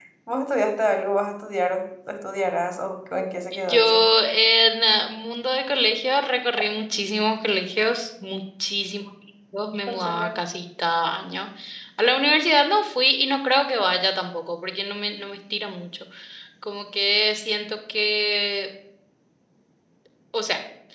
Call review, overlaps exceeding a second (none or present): none